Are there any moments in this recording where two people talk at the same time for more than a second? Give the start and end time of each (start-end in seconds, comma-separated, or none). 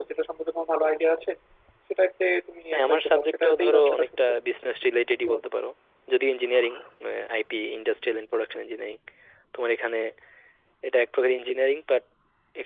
2.7-4.3